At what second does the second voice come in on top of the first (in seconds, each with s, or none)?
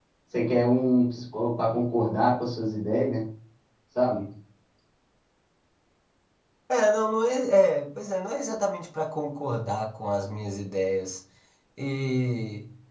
none